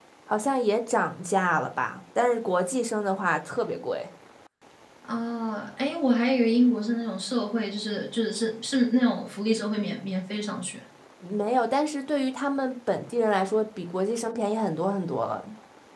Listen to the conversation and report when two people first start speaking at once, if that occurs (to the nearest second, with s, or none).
none